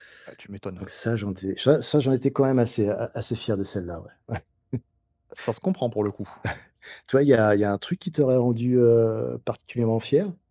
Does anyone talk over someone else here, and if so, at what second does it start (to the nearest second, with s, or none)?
none